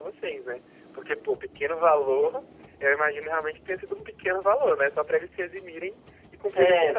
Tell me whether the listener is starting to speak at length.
Yes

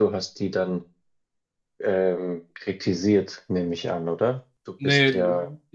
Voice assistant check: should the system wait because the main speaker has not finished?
No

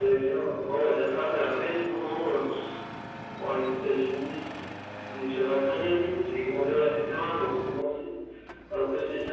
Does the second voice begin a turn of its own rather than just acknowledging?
No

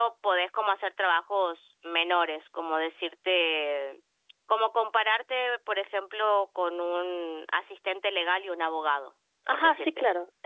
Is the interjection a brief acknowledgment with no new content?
No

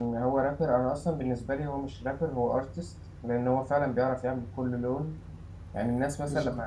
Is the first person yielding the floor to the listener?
No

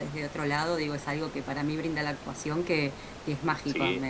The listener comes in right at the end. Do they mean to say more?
No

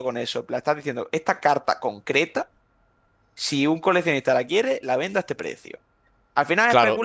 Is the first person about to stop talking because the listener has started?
No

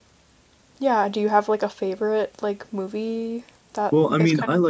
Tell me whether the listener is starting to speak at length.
Yes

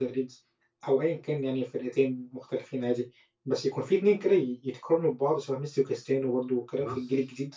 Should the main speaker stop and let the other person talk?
Yes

